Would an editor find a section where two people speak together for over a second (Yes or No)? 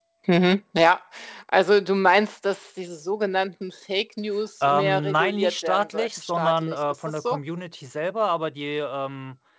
Yes